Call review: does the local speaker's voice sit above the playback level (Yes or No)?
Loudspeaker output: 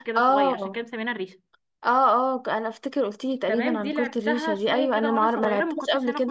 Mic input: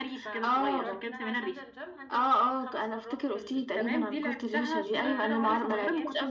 No